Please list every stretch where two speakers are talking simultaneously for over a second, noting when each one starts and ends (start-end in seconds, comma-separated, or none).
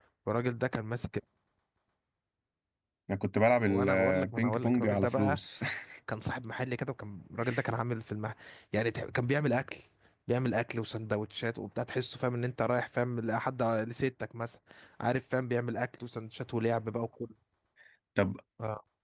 3.6-5.4